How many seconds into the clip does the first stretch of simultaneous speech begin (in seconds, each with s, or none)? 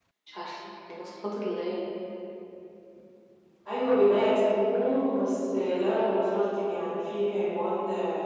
none